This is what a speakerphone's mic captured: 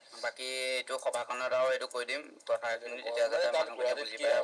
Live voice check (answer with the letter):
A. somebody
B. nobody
B